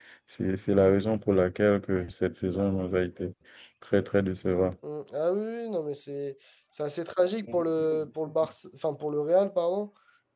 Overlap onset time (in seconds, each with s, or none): none